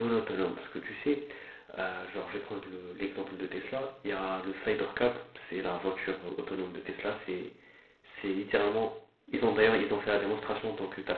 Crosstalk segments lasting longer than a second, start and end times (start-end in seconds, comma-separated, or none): none